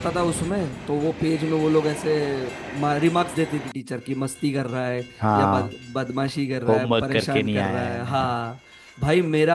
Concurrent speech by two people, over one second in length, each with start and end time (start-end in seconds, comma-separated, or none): 6.7-8.3